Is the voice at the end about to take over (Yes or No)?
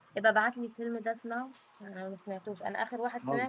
No